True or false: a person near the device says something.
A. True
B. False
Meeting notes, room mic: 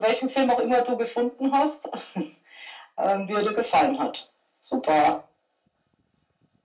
B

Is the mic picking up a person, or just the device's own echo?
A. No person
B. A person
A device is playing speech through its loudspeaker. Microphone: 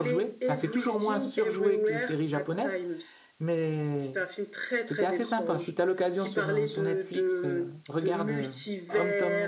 B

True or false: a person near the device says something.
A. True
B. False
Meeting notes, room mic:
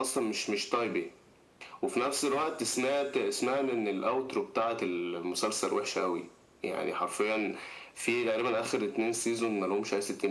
B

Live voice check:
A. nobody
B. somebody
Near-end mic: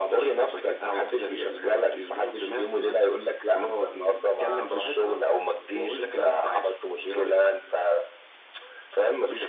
A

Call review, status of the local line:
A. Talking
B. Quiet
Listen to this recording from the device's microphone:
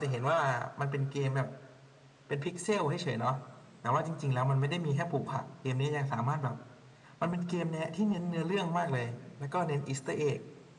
B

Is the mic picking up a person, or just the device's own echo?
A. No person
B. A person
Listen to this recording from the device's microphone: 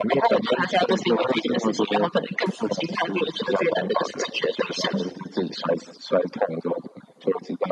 A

